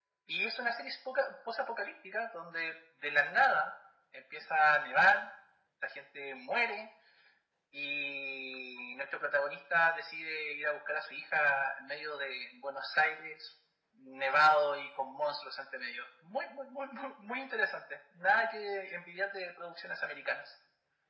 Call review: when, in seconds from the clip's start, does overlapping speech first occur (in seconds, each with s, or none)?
none